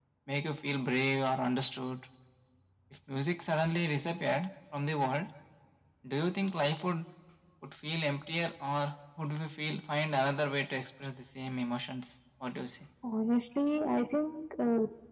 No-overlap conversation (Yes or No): Yes